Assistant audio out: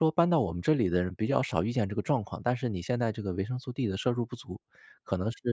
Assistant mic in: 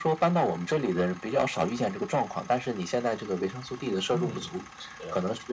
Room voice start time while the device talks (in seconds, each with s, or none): 4.1 s